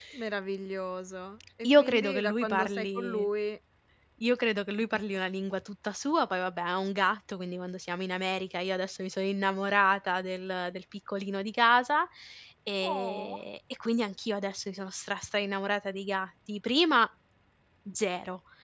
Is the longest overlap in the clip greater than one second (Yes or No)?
Yes